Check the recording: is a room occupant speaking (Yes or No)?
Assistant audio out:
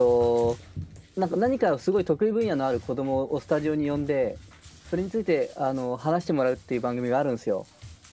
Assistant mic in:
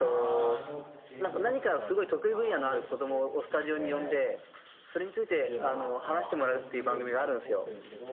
Yes